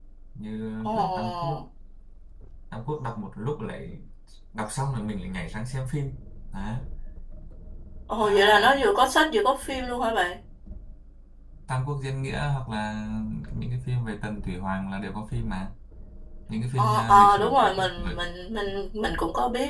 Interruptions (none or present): present